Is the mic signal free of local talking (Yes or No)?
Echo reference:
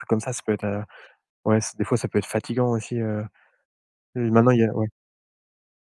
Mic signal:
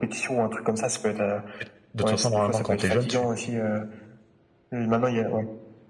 No